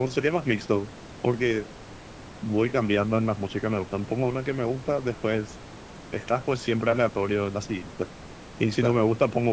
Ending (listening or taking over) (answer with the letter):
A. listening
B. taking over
A